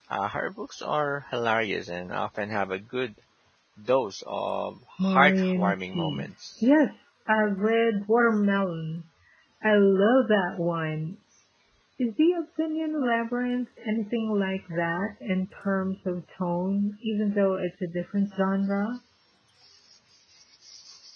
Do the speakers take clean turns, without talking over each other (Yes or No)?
No